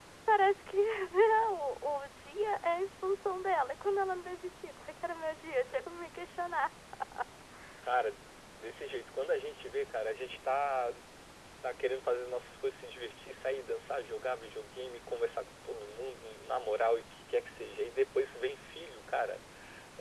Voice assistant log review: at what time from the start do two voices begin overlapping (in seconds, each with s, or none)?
none